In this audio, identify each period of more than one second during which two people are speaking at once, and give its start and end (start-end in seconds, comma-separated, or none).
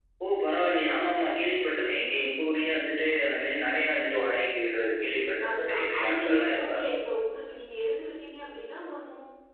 5.5-6.9